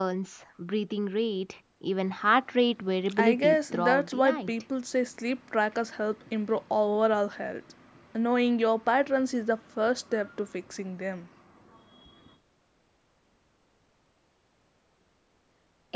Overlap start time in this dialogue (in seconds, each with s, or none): 3.1 s